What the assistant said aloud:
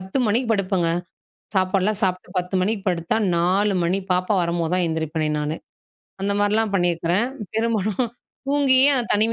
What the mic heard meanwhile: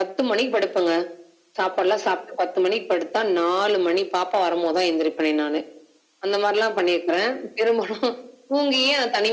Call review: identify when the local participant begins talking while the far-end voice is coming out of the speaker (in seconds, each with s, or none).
none